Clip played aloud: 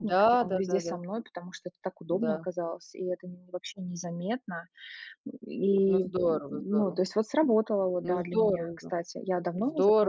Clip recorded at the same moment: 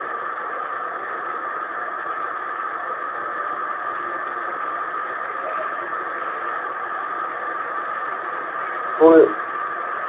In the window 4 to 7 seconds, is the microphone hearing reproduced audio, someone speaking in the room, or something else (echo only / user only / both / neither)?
neither